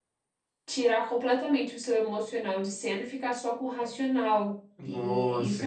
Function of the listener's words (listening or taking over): taking over